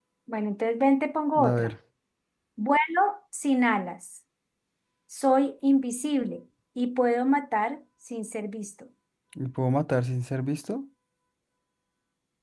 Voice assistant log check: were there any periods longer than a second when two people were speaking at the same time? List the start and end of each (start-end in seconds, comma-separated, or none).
none